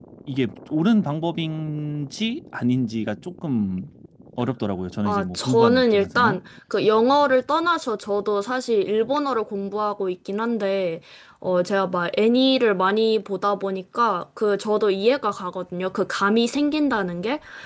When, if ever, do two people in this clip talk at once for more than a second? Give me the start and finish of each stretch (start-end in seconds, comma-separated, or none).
5.0-6.4